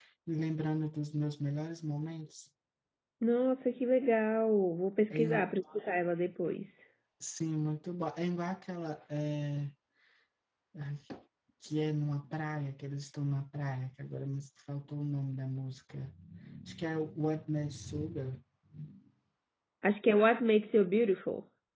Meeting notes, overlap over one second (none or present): none